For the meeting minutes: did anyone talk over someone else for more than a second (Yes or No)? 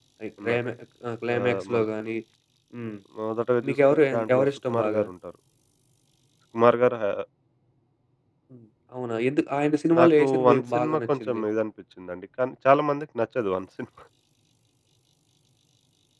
Yes